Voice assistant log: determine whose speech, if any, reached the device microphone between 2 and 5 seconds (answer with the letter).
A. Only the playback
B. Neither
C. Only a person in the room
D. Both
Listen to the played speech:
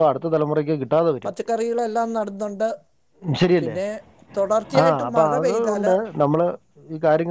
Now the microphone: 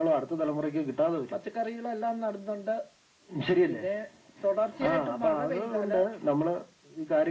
A